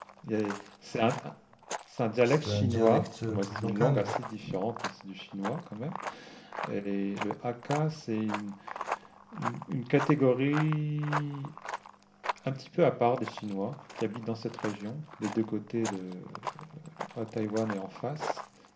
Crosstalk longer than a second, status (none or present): present